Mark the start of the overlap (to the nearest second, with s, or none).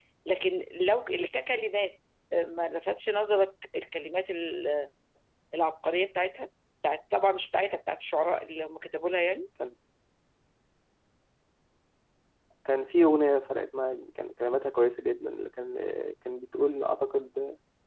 none